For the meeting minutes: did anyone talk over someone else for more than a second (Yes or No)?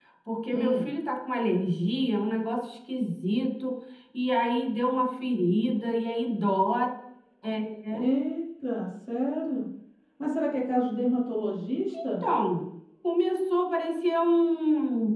No